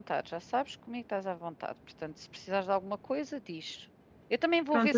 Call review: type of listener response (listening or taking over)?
listening